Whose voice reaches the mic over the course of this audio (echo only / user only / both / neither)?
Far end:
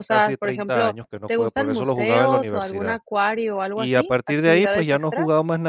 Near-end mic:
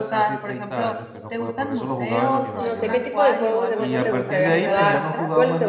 both